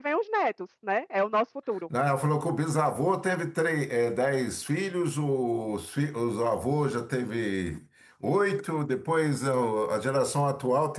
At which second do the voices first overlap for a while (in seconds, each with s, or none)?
none